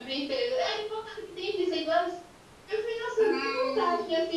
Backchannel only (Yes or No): Yes